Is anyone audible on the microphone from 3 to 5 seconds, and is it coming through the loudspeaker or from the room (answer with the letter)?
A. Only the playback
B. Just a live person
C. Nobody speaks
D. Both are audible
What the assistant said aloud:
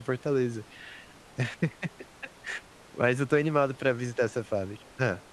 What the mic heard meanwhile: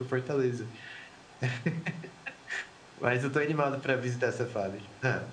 A